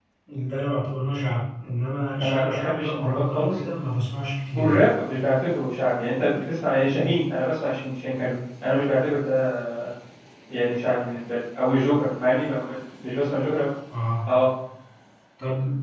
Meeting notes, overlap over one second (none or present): present